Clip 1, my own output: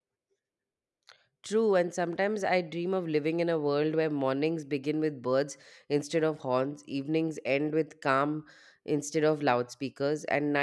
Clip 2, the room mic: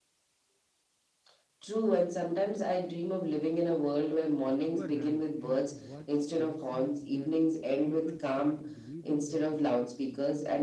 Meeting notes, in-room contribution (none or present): present